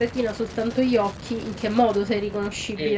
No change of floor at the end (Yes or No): No